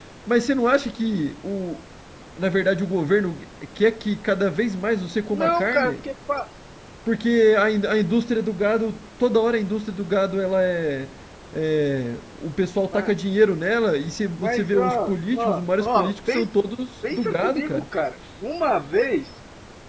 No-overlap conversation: No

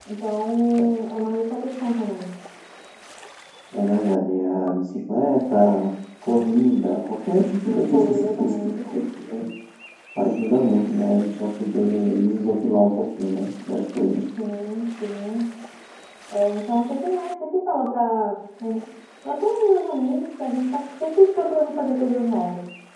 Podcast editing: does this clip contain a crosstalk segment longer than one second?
Yes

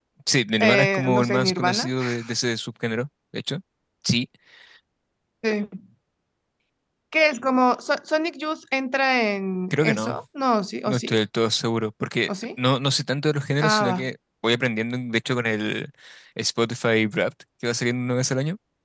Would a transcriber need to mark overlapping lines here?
Yes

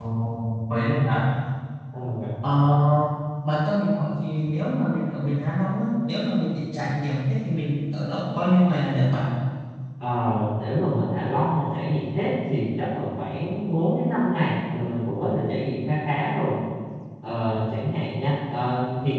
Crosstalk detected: No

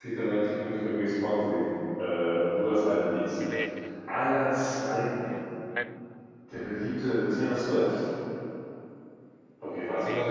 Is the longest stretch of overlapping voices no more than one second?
Yes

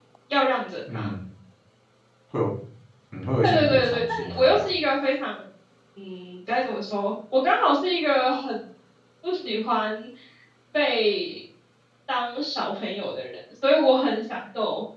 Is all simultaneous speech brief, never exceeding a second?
No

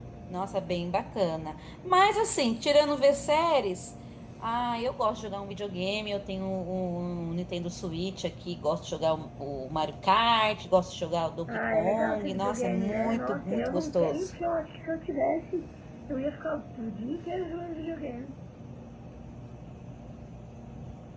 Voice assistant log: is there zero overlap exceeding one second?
No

